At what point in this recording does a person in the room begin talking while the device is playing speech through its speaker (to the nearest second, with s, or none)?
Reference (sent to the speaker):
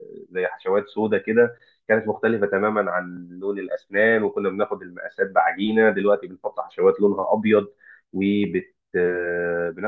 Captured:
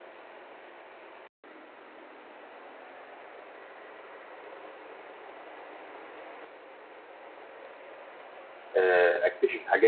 9 s